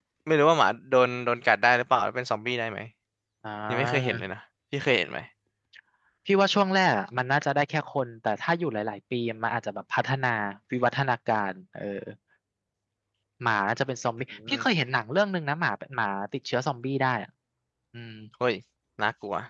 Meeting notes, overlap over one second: none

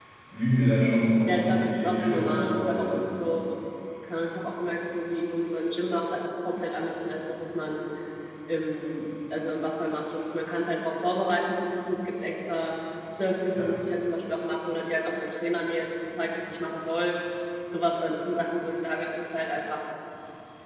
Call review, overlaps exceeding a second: present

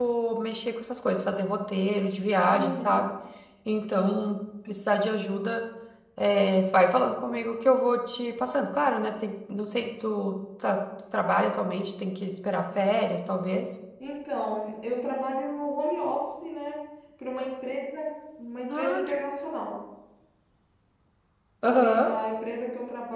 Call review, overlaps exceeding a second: none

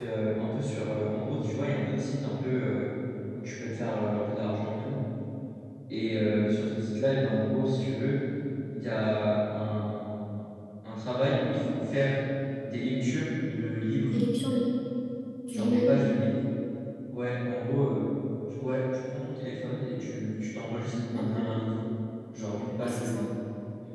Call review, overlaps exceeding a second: none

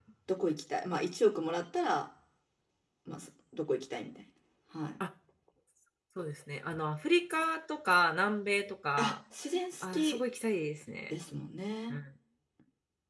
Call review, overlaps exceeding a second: none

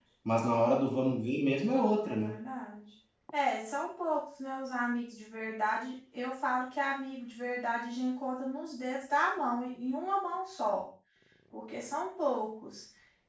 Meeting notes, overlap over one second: none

